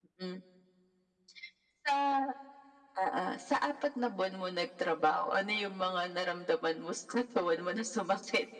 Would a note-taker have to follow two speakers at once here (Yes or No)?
No